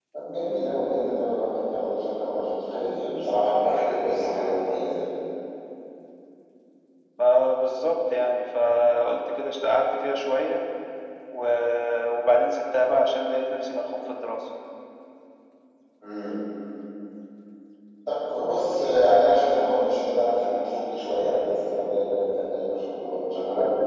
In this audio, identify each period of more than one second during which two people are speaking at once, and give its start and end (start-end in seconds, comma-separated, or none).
none